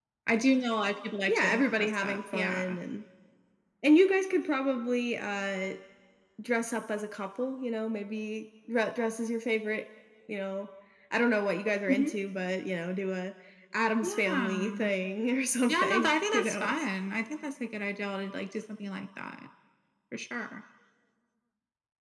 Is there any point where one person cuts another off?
Yes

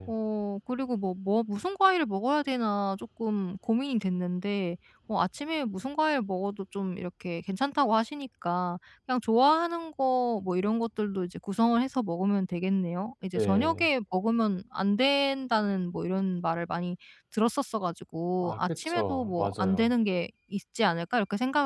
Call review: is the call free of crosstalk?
No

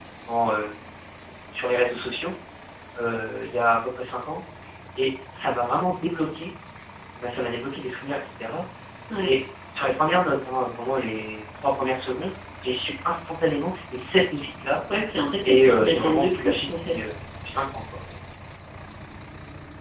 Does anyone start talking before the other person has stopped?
Yes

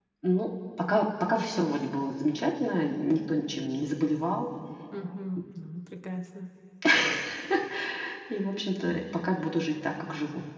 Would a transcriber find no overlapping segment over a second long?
Yes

